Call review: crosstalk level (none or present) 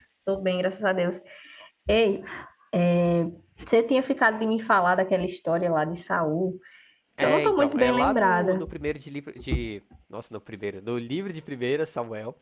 present